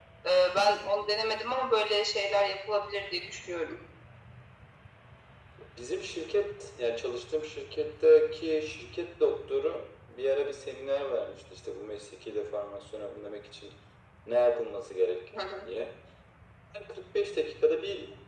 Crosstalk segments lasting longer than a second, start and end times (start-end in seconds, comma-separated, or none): none